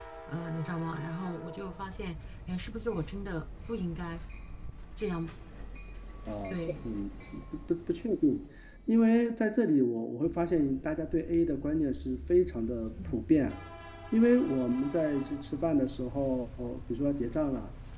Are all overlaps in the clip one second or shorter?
Yes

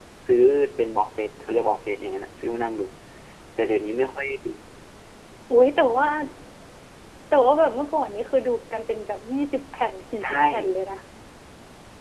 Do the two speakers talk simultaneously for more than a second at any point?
No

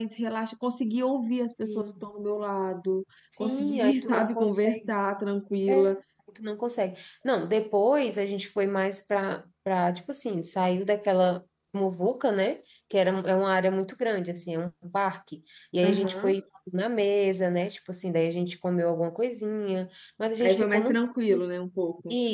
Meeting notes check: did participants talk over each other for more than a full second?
Yes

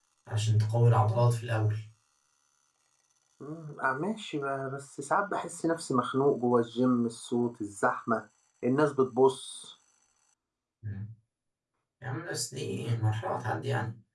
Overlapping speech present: No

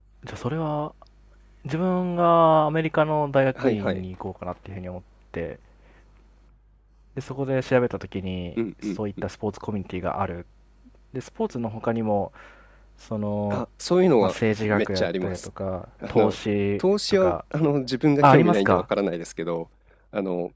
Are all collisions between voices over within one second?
No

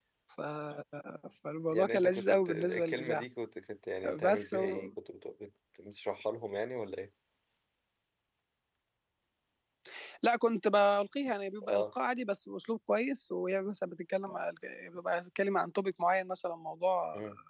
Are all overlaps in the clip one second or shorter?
No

